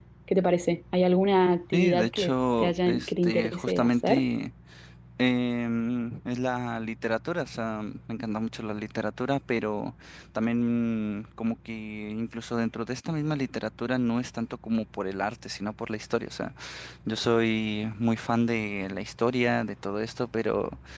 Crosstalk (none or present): present